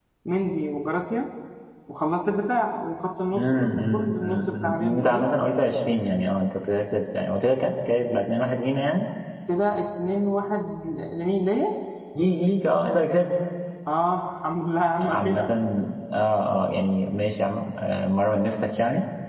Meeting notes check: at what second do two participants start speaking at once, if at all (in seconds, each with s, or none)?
3.4 s